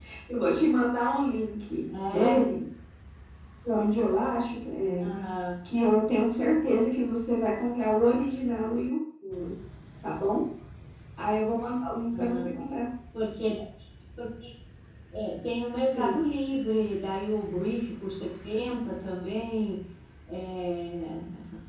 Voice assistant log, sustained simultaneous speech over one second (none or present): none